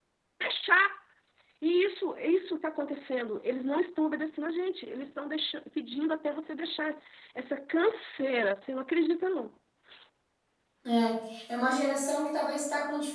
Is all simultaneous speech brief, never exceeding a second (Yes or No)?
Yes